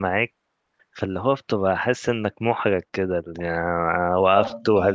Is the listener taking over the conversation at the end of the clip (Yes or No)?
No